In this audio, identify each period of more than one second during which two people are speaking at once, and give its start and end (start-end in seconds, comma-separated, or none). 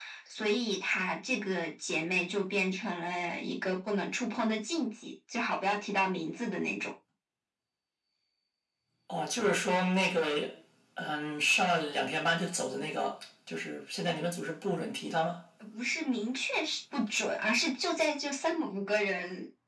none